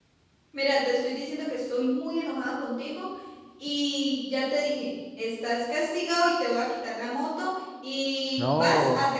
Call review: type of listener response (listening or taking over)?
listening